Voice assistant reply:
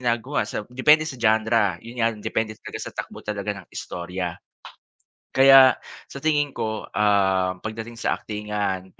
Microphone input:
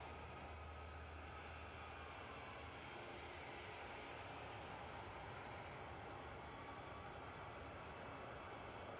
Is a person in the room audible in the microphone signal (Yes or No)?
No